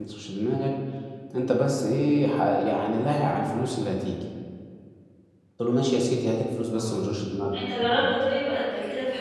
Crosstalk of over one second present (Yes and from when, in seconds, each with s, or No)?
No